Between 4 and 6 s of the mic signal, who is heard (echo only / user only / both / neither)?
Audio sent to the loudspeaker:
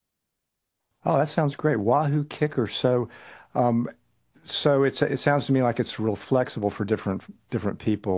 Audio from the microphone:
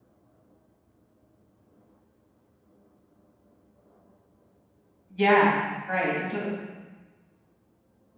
user only